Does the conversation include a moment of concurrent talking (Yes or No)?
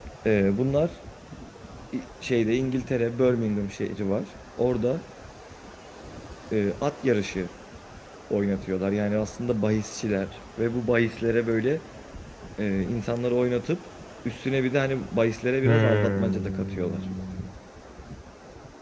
Yes